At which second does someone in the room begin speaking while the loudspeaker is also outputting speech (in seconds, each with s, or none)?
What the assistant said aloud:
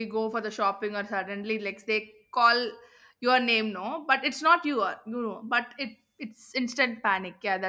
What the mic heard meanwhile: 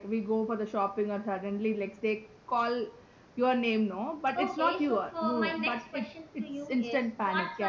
4.4 s